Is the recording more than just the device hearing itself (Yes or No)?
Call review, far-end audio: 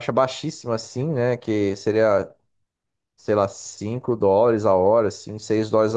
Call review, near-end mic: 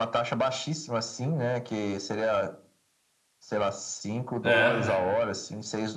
Yes